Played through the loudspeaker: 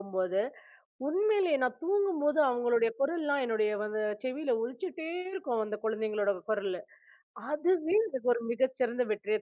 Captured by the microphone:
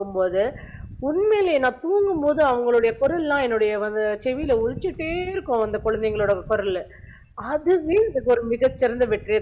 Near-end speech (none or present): none